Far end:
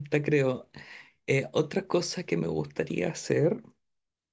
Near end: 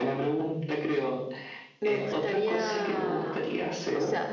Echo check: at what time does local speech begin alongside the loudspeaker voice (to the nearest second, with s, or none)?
2 s